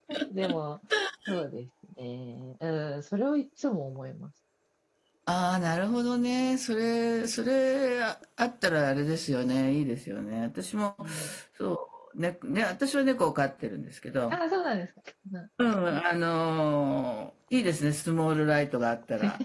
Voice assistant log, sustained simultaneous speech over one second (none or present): none